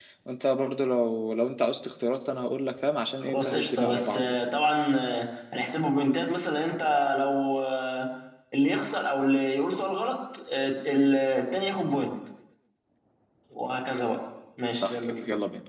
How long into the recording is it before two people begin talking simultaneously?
3.2 s

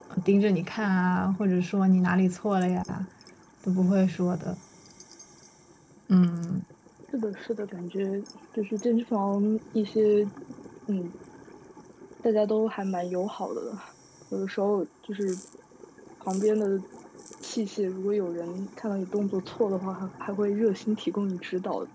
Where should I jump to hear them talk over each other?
none

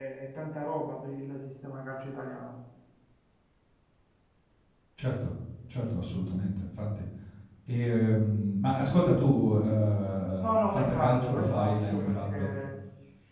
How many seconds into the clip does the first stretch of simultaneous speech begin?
10.4 s

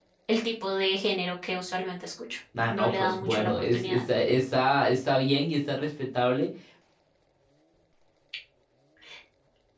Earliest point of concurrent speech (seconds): 2.5 s

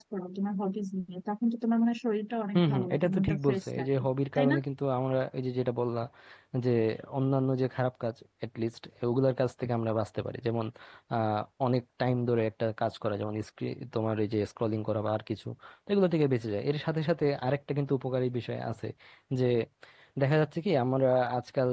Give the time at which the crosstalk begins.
2.5 s

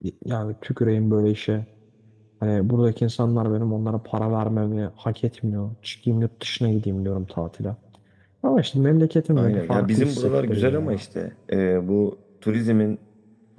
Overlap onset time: 9.4 s

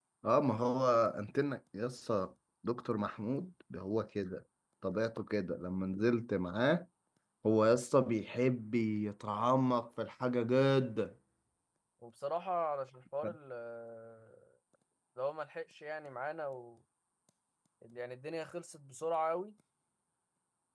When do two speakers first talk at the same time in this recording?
none

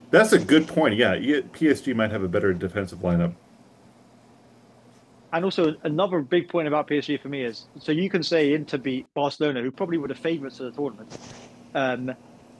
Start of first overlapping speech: none

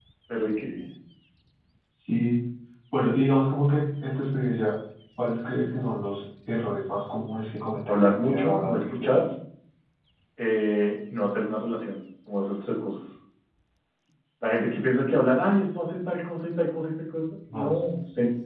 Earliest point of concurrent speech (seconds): 7.9 s

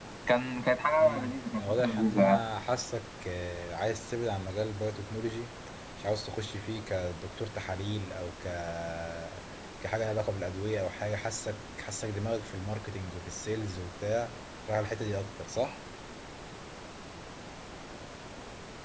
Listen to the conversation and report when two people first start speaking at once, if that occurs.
1.0 s

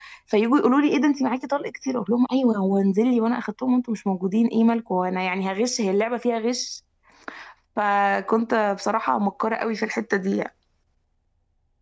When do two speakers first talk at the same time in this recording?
none

